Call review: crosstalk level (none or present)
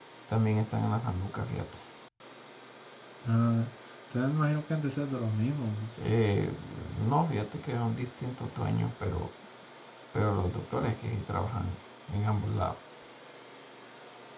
none